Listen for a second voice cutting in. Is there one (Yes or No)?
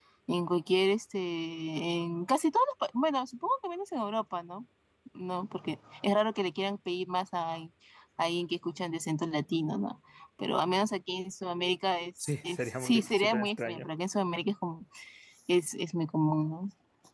Yes